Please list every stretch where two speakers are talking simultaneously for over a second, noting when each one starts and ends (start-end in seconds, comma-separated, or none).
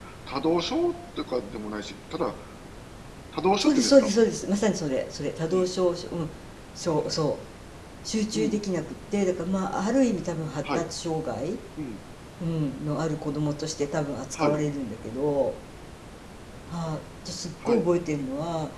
none